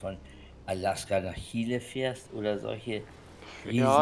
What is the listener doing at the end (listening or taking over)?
taking over